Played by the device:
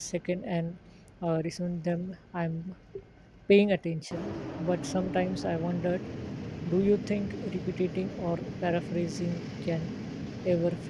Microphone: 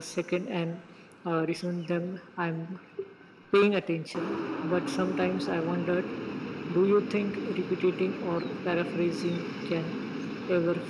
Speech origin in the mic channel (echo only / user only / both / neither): echo only